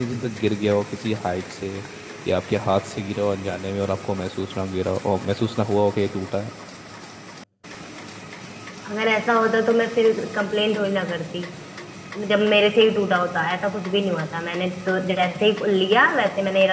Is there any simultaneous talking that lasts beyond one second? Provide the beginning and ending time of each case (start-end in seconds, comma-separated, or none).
none